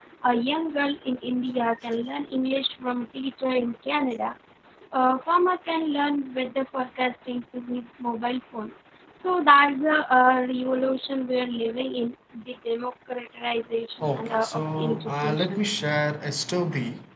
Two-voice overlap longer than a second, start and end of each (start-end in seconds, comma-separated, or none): 14.0-15.6